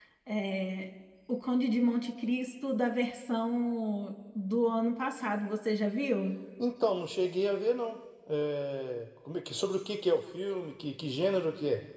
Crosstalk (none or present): none